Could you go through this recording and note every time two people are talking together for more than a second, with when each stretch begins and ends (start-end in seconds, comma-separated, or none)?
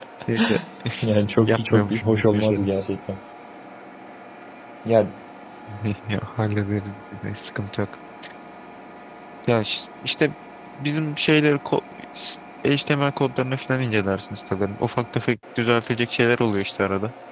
1.4-2.7